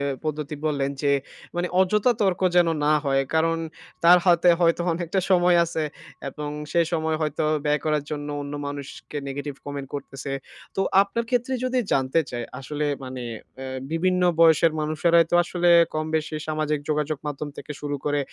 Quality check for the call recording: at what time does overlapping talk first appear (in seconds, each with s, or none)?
none